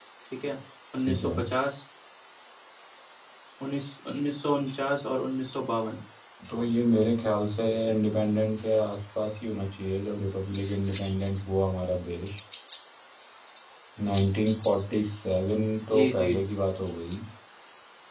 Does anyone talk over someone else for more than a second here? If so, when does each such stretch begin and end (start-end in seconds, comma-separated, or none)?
none